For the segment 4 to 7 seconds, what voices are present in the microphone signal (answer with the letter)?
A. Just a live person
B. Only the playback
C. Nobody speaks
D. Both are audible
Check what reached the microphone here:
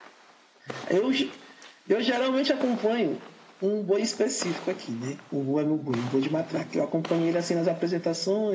B